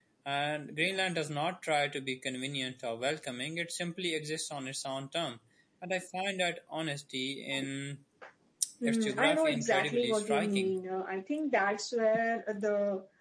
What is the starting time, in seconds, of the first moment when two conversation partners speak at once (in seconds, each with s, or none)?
8.8 s